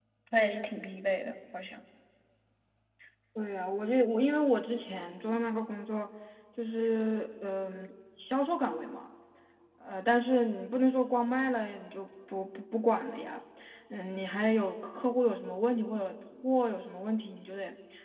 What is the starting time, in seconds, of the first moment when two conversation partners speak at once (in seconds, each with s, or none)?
none